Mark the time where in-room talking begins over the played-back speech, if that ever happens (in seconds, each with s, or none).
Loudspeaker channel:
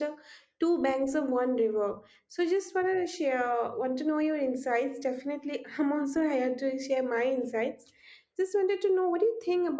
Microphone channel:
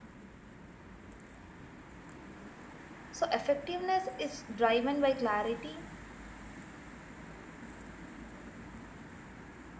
3.1 s